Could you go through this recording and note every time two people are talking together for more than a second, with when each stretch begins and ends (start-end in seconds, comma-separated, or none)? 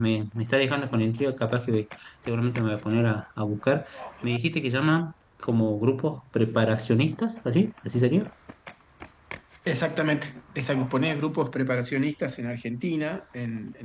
none